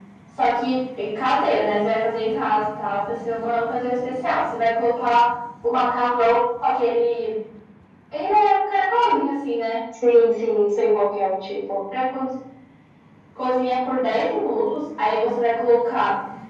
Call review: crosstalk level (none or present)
none